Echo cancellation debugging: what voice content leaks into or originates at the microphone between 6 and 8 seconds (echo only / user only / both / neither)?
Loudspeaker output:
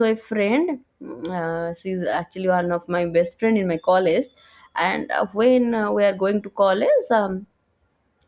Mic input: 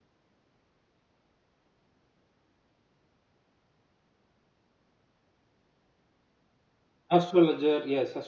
user only